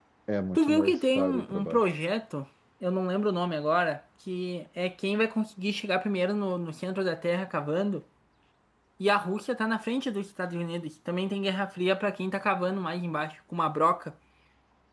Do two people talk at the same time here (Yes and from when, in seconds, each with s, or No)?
Yes, from 0.6 s